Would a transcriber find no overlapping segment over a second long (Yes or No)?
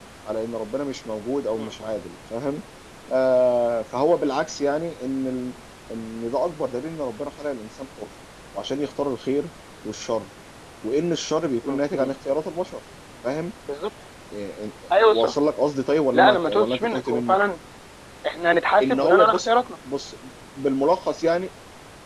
No